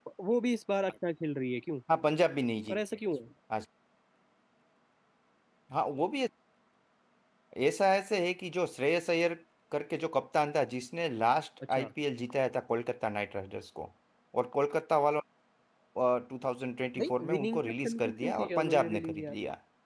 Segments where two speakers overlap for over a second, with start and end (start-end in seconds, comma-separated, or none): 17.0-19.3